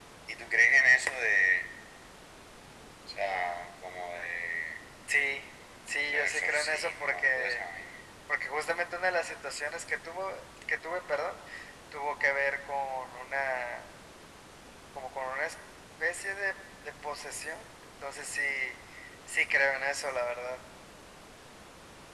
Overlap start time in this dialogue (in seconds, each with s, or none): 6.1 s